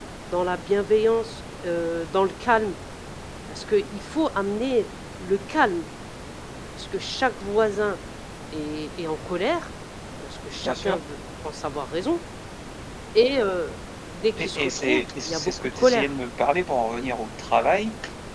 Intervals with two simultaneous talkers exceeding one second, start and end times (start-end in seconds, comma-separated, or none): 14.4-16.1